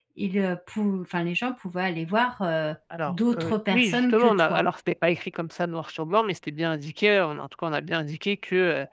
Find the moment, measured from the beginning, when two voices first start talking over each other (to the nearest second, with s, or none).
3 s